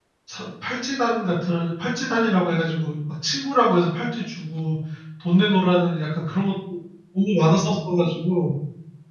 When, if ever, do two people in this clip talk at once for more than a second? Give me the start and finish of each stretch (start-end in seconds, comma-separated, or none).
none